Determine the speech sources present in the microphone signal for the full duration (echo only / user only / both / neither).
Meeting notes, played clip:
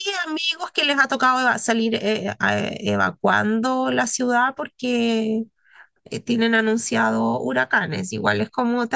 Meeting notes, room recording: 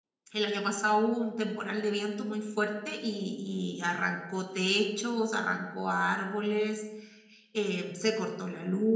user only